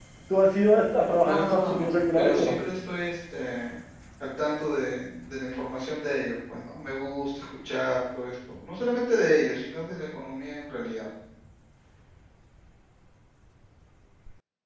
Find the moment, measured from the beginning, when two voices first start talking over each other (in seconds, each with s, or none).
1.2 s